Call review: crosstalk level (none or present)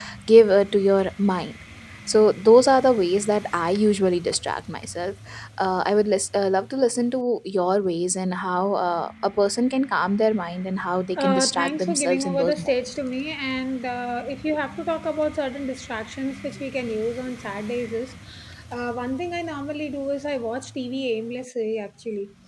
present